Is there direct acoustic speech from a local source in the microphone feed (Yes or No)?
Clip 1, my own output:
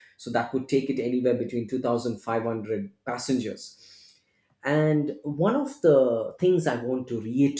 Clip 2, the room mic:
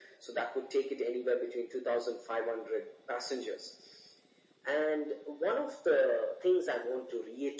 No